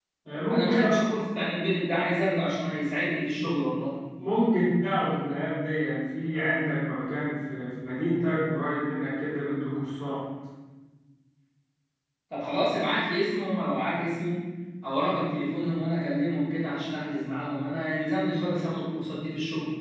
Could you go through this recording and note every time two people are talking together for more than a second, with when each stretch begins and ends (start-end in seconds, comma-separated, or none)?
none